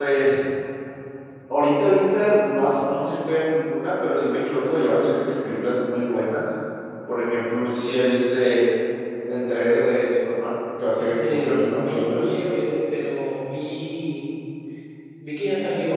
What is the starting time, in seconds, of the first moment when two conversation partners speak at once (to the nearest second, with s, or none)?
11 s